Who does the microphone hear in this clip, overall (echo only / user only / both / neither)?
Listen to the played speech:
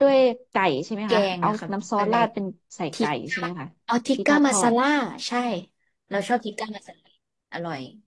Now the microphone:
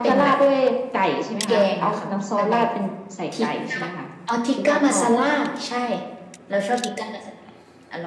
echo only